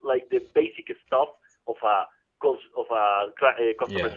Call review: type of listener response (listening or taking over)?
listening